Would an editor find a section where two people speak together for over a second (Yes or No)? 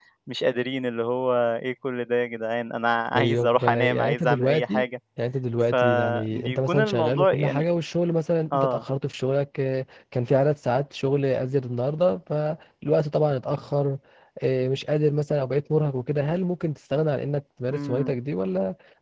Yes